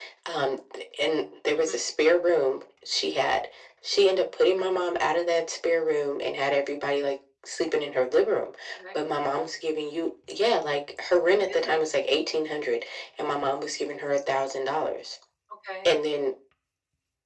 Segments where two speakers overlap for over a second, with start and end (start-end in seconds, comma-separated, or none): none